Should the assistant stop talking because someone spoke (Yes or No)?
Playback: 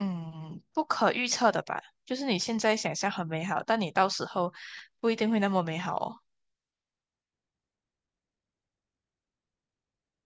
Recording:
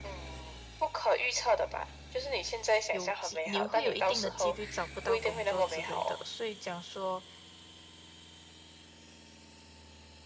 Yes